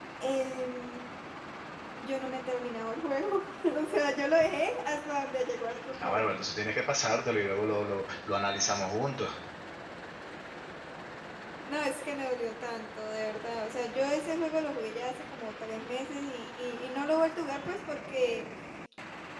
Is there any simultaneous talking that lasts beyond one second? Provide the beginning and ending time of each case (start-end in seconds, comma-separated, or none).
none